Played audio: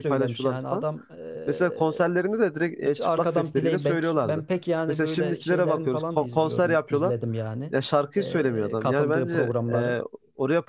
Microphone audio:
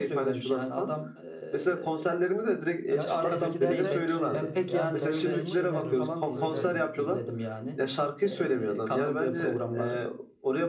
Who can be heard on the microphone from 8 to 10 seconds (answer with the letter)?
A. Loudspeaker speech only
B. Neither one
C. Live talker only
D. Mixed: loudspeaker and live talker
A